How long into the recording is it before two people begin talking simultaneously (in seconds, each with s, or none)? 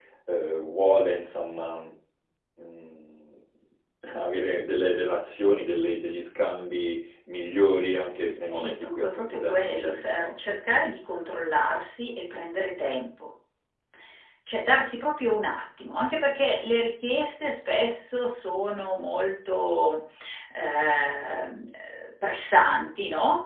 8.5 s